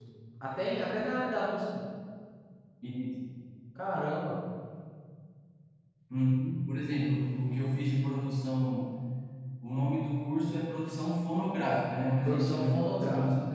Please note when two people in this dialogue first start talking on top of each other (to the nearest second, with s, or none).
12 s